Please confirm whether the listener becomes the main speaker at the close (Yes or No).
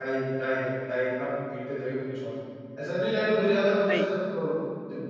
No